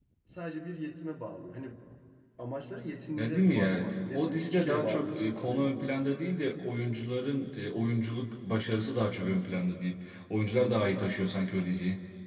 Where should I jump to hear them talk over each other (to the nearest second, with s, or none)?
3 s